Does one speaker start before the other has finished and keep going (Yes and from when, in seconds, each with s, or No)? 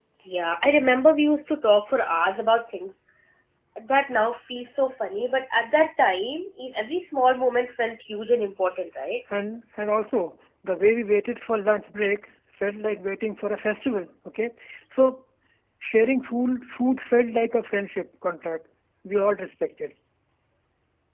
No